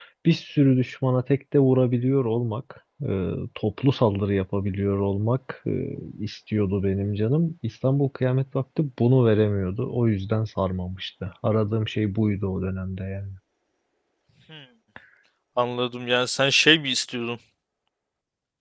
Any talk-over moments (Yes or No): No